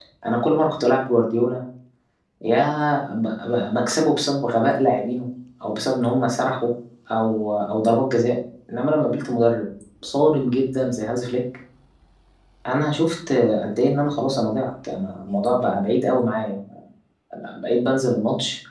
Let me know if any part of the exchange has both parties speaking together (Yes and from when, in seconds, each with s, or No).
No